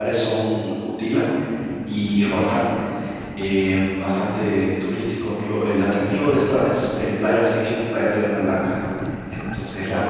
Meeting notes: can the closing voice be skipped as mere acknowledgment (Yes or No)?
No